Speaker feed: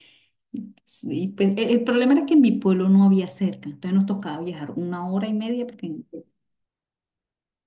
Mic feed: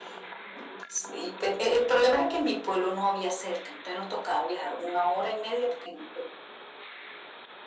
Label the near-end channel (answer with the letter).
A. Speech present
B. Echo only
B